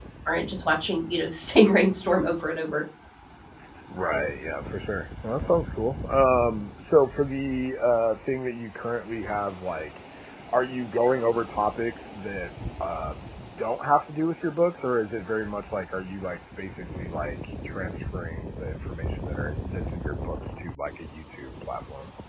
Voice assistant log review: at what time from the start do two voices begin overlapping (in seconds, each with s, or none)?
none